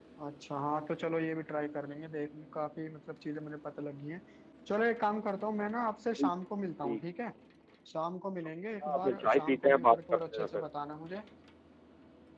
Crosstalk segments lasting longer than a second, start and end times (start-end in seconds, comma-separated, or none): 8.8-10.6